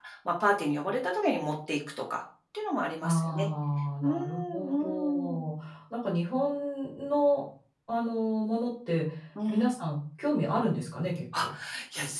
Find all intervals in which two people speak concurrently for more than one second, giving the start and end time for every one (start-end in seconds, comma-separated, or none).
4.0-5.5